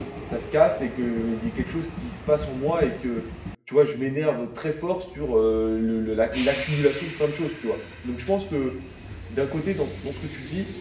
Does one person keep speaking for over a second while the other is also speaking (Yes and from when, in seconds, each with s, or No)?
No